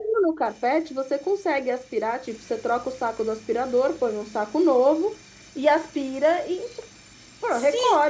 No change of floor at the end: No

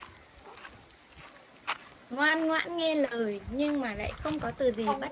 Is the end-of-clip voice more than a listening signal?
Yes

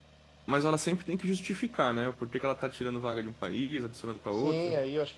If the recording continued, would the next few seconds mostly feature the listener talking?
Yes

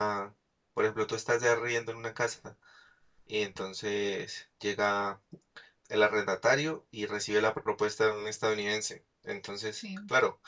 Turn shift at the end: No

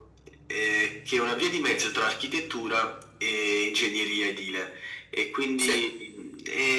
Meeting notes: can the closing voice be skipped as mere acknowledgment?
Yes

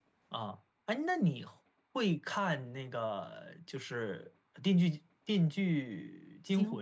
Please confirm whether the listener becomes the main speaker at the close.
Yes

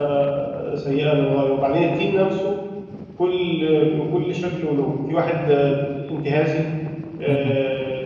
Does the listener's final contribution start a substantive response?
No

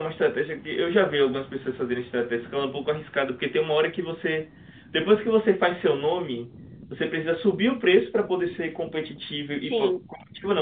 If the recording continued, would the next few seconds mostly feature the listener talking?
No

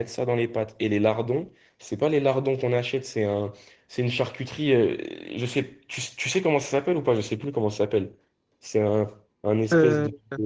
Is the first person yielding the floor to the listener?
No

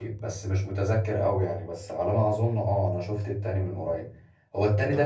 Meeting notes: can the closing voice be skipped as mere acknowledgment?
Yes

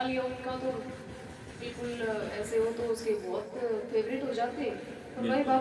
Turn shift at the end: No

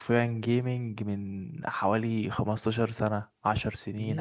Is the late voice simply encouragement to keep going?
No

